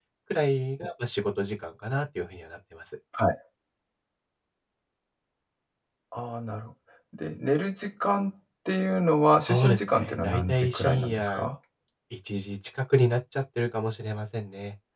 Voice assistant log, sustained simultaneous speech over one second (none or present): present